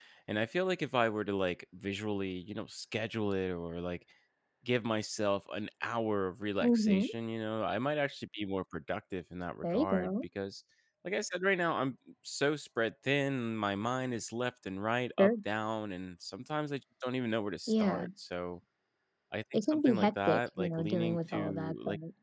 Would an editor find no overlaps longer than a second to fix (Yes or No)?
No